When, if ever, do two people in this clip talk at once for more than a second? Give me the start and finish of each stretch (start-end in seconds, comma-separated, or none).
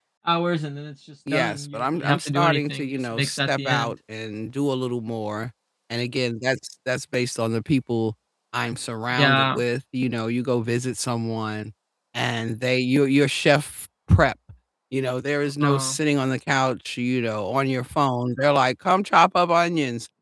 1.3-3.9